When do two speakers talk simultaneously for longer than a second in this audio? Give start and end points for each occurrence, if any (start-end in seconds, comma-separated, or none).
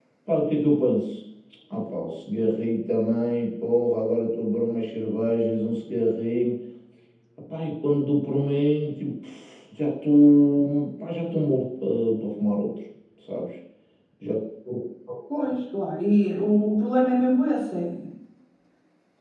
none